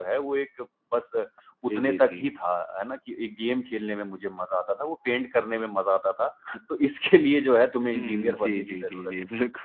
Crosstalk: present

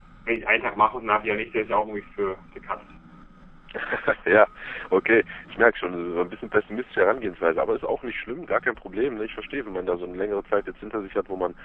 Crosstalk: none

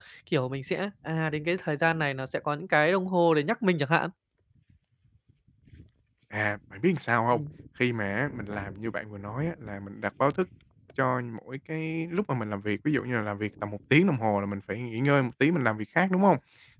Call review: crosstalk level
none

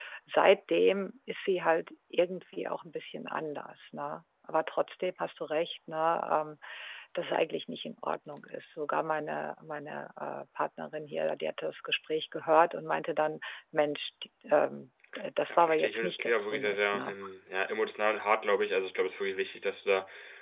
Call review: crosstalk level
present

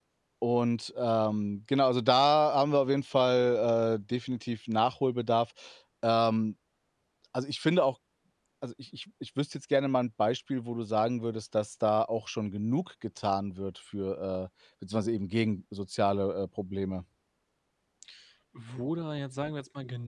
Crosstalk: none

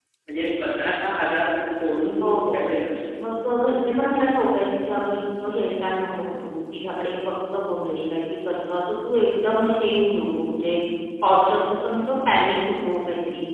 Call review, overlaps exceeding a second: none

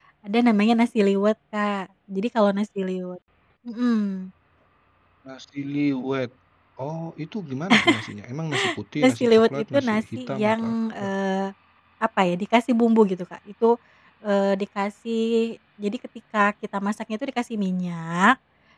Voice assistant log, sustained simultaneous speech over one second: present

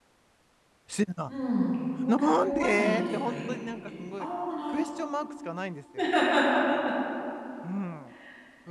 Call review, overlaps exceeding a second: present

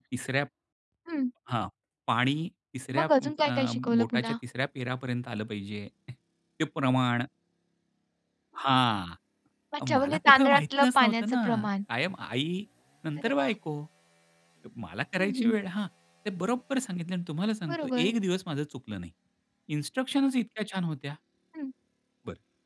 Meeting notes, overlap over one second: present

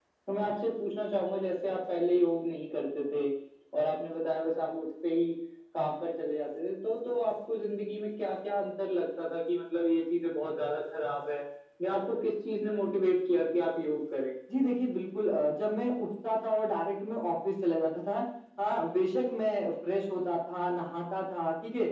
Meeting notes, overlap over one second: none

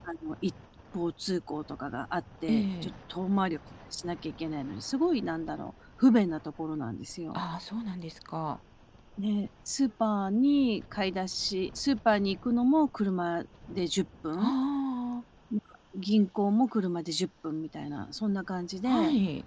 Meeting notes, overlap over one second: none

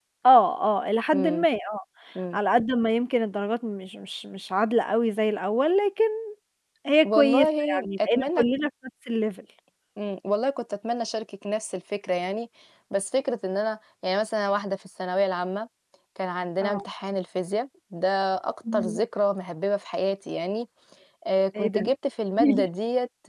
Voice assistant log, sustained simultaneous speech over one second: present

